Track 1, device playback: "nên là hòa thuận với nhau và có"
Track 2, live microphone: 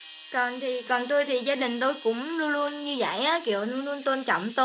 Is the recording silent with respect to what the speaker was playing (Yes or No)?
Yes